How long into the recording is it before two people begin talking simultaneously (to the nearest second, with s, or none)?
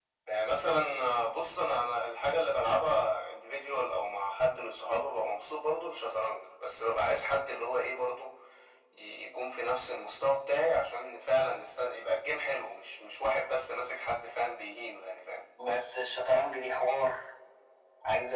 none